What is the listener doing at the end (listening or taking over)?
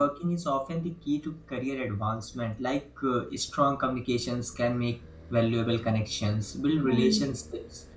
listening